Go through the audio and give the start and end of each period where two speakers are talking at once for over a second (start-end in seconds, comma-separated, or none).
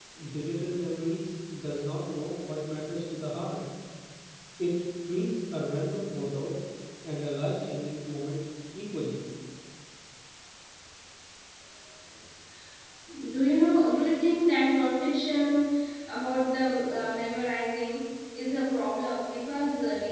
none